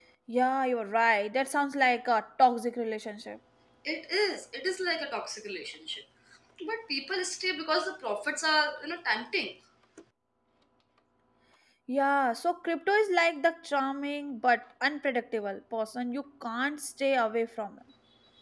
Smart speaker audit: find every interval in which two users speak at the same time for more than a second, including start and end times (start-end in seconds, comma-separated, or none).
none